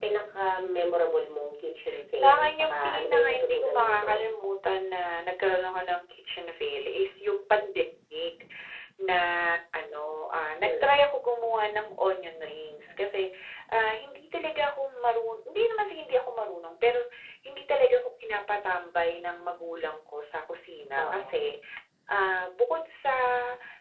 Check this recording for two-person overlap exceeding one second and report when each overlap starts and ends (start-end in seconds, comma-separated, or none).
2.2-4.2